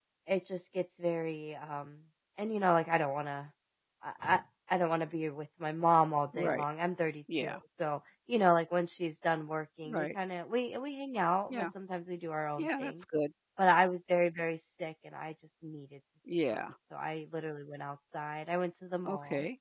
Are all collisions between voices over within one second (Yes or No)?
Yes